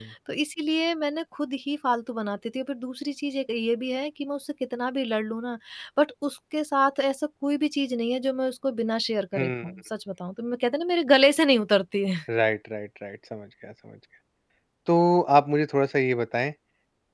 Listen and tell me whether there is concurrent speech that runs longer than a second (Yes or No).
No